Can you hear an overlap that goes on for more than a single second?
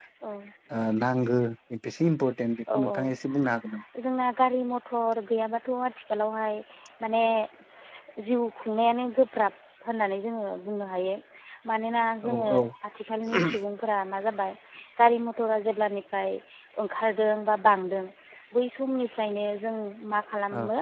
No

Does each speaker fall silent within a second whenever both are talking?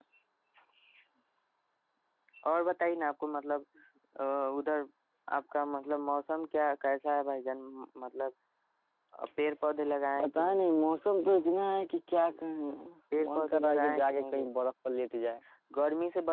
No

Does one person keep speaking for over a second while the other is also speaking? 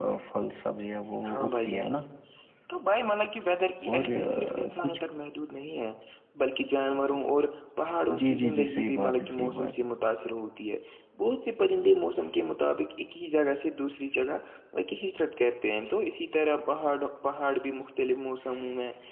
Yes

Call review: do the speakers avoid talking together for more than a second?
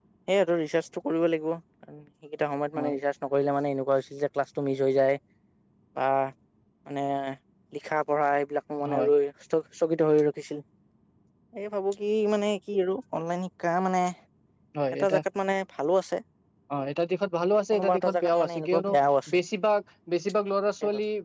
No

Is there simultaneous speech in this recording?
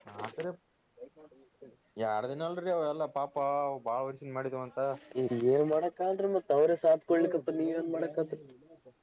No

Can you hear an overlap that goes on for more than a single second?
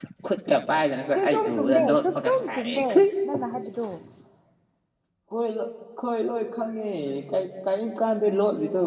Yes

